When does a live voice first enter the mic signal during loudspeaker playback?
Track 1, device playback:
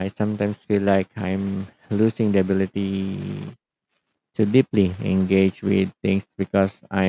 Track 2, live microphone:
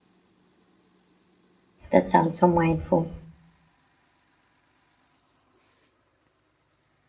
1.9 s

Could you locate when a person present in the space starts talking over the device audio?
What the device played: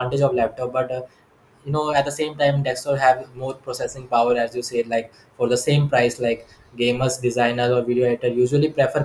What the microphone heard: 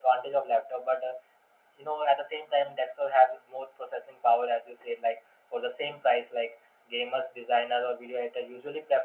none

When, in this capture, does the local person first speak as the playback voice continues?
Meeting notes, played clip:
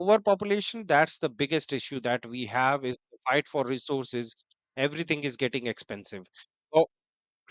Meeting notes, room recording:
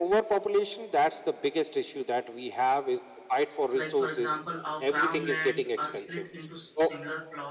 3.7 s

